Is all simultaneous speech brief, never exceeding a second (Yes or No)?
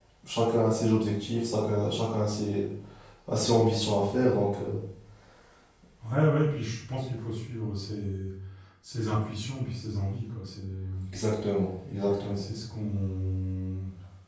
Yes